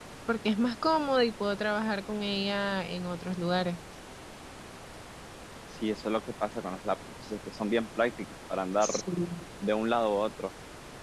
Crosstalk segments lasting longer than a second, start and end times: none

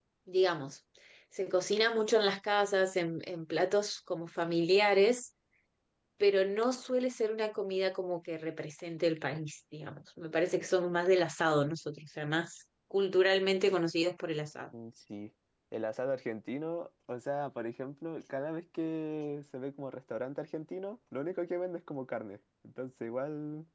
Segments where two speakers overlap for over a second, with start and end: none

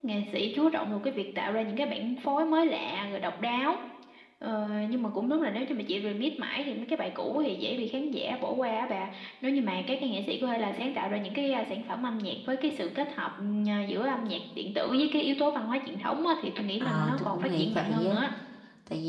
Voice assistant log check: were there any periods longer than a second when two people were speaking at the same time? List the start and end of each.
16.8-18.2

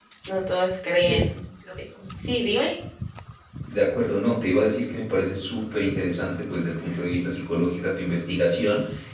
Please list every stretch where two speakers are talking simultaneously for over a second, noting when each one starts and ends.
none

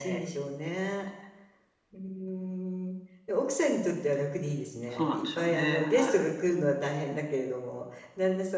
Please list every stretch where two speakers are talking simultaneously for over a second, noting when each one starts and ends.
4.9-6.3

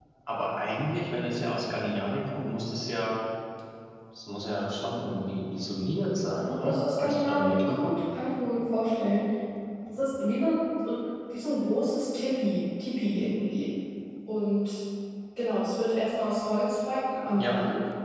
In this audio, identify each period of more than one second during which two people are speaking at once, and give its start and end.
6.4-7.9

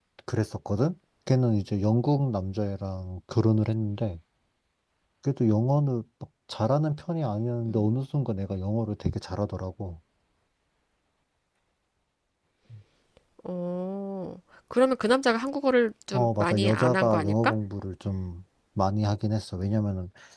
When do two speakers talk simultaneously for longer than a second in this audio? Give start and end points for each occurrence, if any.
16.1-17.5

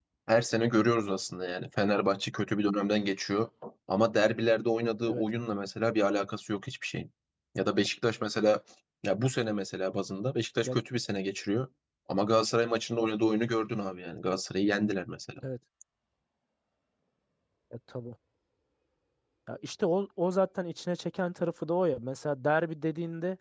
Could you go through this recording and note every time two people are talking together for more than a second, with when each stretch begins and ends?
none

